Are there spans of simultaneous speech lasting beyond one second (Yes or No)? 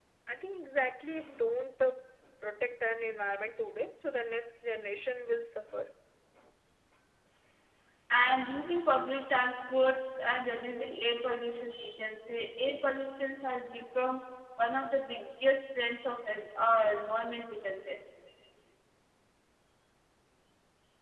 No